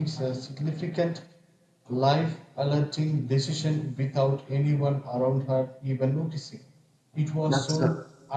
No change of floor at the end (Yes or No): Yes